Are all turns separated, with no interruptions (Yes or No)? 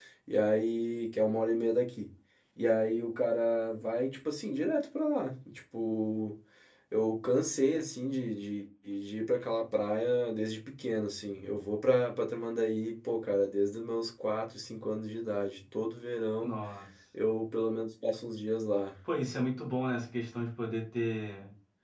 Yes